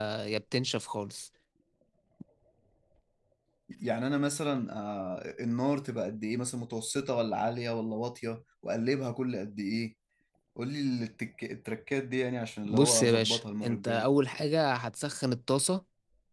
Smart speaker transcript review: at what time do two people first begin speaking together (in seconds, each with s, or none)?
12.7 s